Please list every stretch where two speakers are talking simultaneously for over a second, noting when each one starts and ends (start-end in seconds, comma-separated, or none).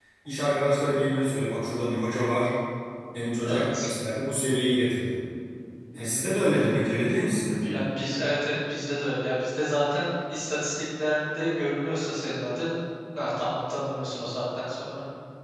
none